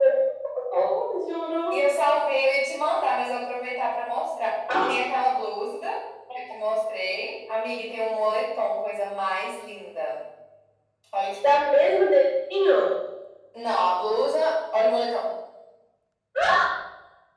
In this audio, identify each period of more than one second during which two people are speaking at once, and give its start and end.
none

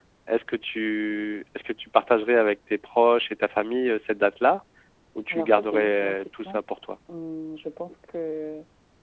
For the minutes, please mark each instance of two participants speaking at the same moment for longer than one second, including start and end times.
5.3-6.6

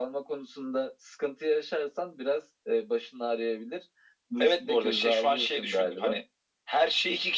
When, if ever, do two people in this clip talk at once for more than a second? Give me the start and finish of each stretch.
4.4-6.2

